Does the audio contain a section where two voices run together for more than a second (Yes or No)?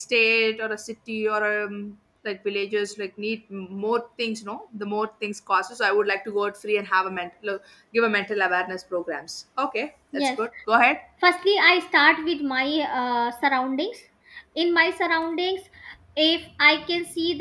No